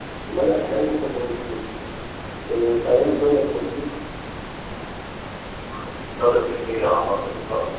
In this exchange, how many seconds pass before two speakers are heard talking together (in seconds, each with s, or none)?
none